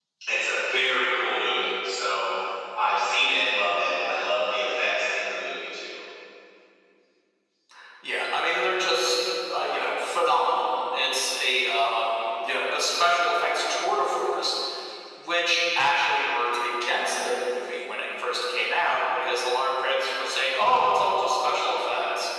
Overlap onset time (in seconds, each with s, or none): none